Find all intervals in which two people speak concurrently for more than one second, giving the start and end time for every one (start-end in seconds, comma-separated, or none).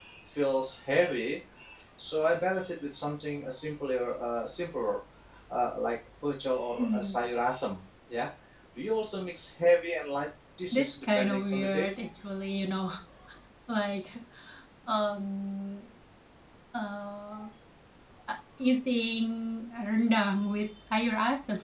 10.7-11.9